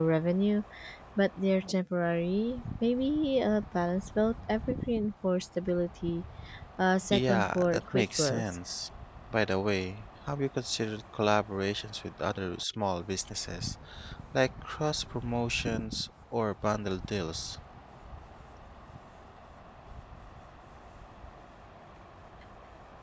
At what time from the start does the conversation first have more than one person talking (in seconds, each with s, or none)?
7.1 s